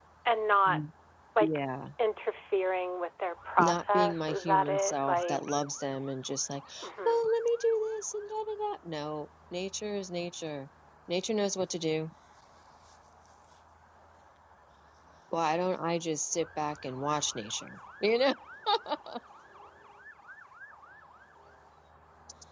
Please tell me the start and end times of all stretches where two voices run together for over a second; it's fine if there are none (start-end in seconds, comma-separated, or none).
3.6-5.4